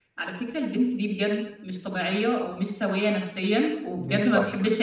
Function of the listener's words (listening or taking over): listening